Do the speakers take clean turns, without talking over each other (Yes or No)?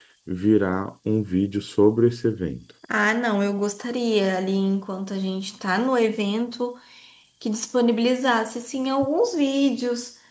Yes